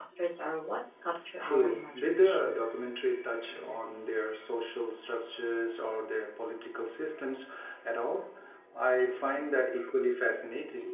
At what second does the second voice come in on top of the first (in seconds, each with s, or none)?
1.4 s